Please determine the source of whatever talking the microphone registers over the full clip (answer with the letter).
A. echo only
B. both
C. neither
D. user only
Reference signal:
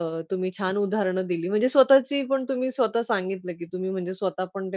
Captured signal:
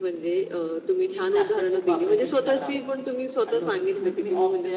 B